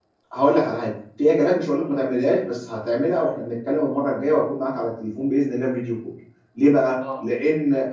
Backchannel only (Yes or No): Yes